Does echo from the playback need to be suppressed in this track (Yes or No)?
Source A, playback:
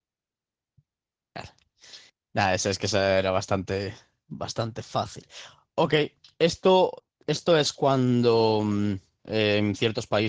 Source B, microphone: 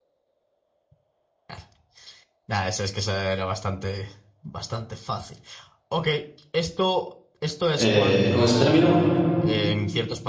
Yes